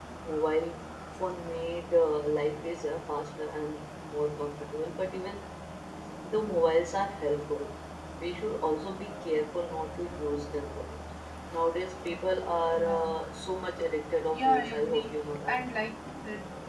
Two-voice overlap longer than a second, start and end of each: 14.3-15.6

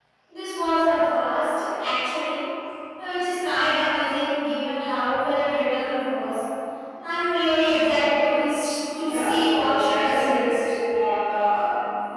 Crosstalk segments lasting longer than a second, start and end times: 9.0-10.6

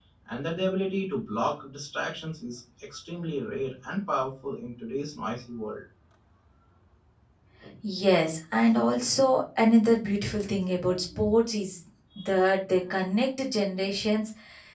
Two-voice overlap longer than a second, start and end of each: none

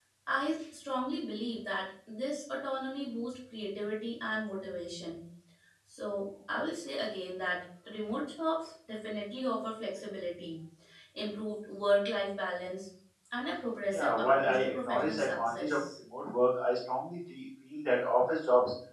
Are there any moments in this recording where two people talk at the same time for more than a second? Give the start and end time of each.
13.9-15.8

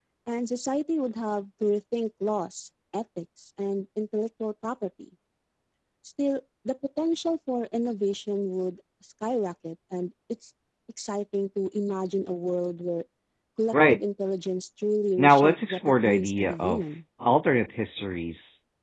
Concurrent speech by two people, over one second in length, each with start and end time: 15.2-16.8

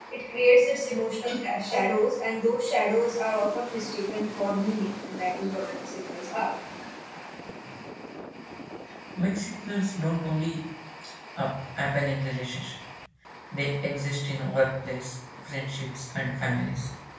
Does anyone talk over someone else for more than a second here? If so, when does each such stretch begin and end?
none

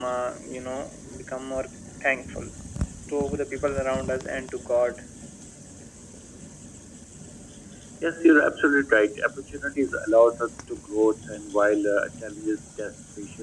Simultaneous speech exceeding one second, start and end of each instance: none

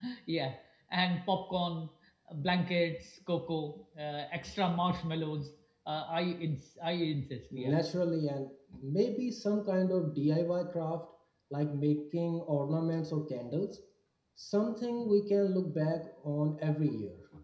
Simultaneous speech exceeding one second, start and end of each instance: none

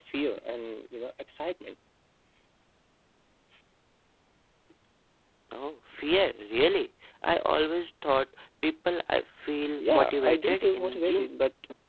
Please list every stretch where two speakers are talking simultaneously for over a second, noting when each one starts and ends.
9.8-11.3

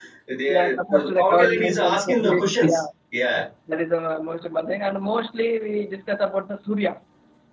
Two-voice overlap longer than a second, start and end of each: 1.0-2.8

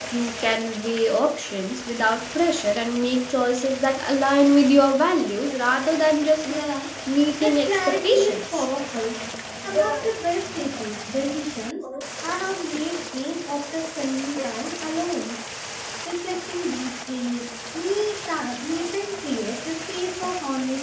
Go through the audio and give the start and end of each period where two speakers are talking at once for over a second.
7.4-8.7

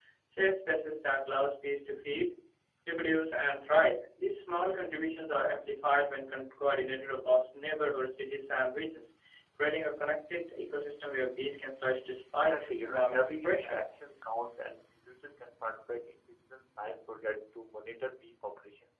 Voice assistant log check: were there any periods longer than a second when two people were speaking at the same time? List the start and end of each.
12.3-13.8

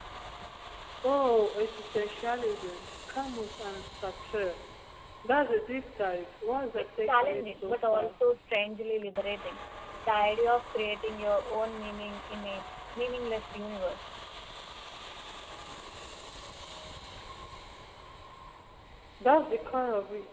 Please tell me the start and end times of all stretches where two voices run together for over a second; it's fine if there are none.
6.8-8.2

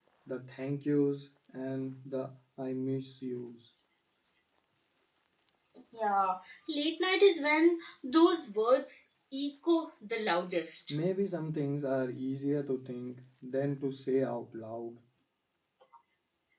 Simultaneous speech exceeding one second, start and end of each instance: none

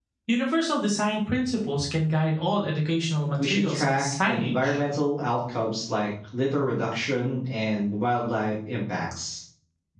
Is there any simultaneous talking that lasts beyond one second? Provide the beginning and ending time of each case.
3.4-4.8

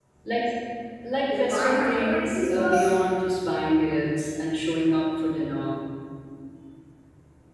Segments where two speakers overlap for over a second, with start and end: 1.3-3.0

